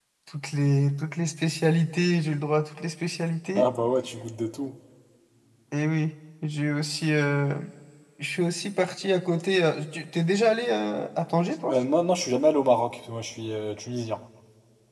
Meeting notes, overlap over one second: none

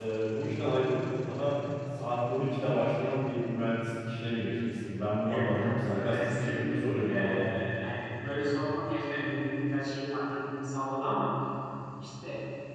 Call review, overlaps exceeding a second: present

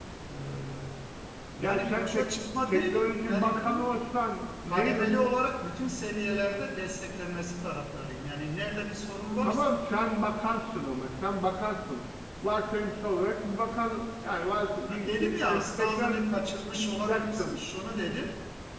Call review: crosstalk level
present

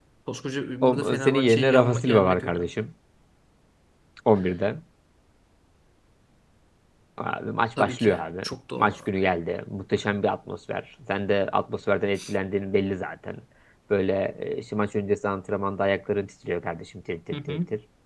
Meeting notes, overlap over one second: present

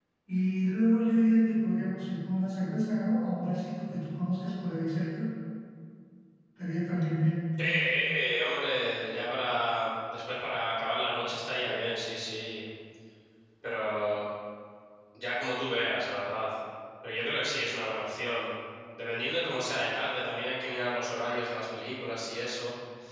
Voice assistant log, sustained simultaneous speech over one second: none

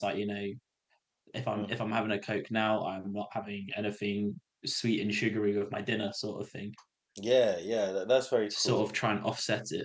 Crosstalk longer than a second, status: none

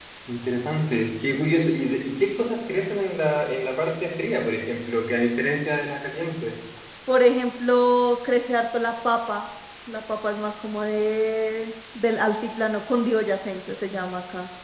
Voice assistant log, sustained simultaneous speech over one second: none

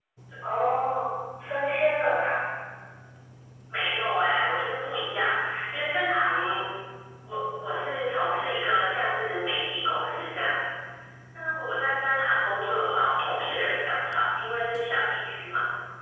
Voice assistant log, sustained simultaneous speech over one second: none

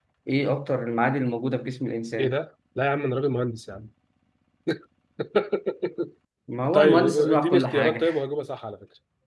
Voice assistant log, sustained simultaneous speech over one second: present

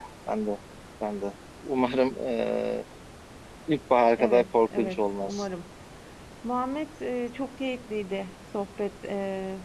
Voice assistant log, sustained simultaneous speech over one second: present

